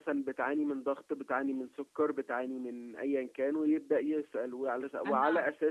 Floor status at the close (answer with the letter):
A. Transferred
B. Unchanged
B